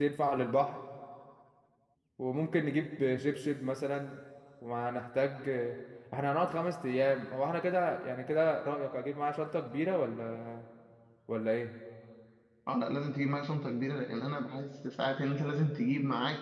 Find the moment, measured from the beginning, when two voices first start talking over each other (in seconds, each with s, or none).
none